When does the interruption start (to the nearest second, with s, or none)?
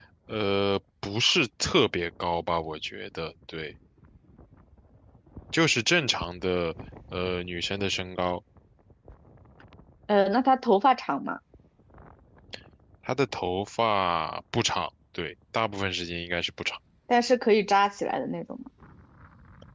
none